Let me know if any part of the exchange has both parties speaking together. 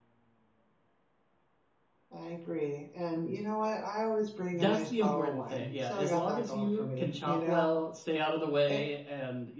Yes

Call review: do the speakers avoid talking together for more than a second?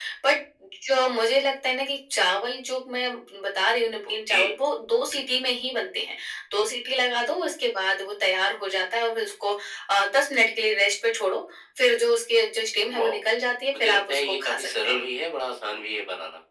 No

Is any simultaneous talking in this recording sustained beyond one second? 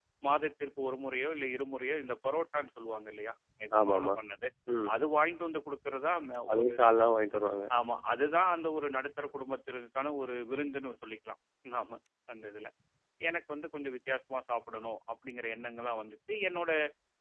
No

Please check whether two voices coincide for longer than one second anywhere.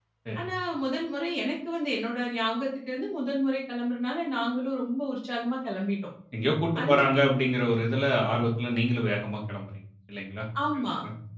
No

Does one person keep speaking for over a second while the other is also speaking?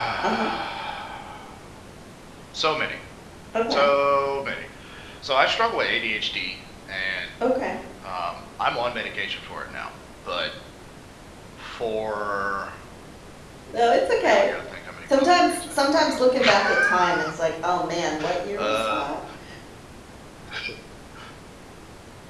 Yes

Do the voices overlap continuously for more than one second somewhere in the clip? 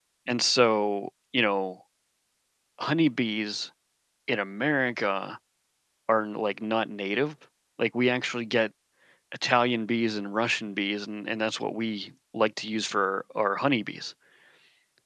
No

